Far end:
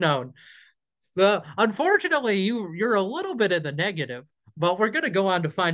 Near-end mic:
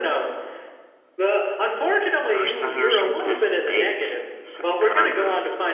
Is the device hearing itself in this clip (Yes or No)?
Yes